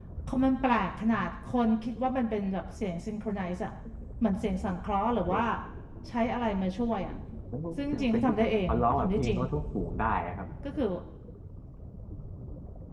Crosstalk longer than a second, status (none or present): present